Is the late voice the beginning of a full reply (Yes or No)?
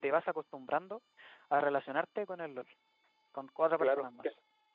Yes